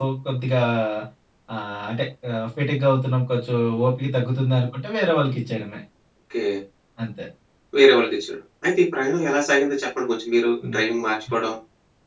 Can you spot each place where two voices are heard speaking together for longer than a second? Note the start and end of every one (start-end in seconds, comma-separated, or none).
none